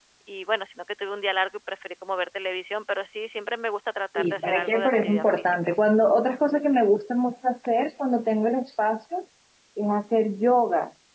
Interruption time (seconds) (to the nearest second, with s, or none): 4 s